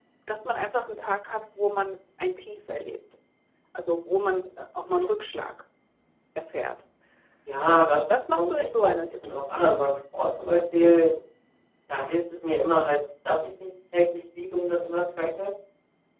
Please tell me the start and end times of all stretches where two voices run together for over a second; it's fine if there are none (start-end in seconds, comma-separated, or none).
7.7-9.8